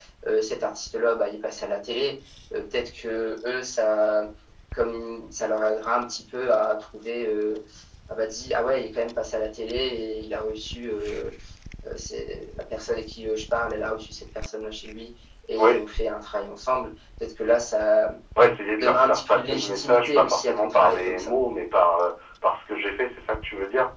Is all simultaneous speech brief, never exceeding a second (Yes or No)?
No